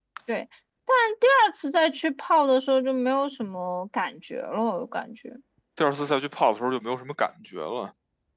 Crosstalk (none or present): none